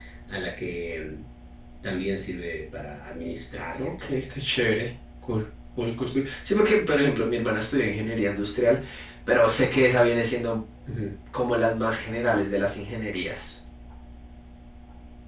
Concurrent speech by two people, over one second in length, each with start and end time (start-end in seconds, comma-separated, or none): none